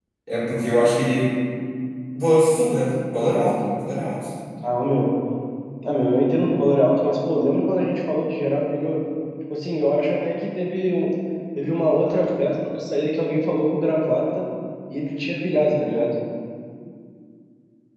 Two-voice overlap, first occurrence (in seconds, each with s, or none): none